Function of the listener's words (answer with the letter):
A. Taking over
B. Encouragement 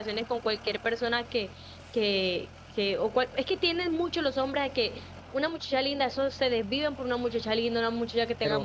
A